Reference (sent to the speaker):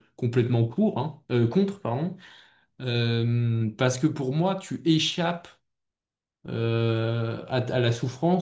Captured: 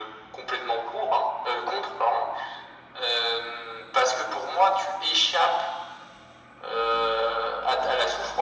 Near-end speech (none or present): none